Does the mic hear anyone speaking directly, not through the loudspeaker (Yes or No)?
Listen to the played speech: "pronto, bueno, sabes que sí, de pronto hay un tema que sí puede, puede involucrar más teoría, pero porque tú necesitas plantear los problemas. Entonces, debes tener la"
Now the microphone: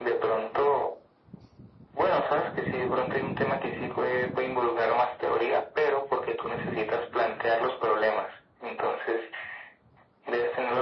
No